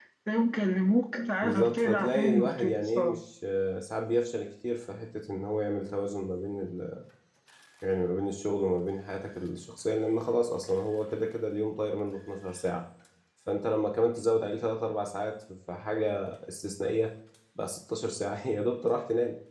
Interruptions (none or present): present